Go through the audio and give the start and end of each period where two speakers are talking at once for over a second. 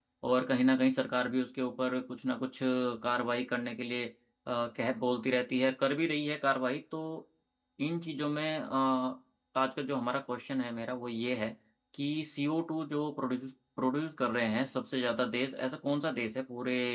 none

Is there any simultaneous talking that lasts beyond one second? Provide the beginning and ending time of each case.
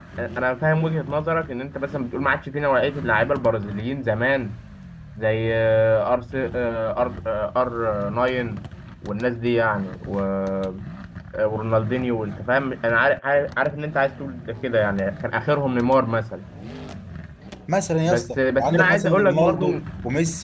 18.0-19.6

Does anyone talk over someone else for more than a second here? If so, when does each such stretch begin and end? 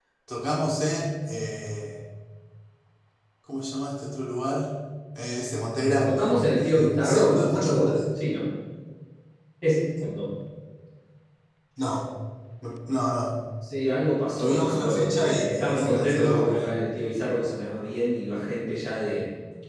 6.0-8.0, 14.4-16.7

